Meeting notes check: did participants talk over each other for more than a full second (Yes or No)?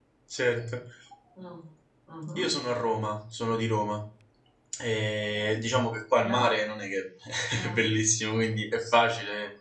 No